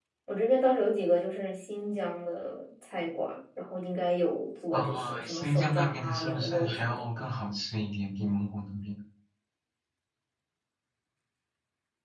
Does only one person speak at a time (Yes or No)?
No